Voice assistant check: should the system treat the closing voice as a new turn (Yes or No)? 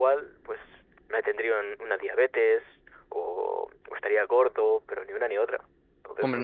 Yes